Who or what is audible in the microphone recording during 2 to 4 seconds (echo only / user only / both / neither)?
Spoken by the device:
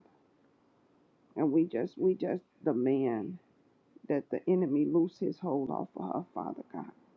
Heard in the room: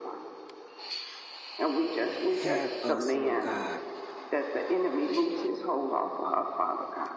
both